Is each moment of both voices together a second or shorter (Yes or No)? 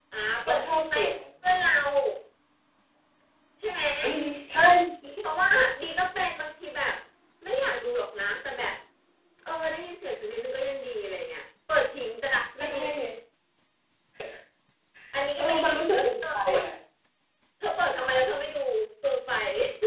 No